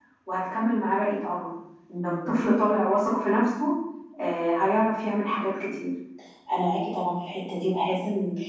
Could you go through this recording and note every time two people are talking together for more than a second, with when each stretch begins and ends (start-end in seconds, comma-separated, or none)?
none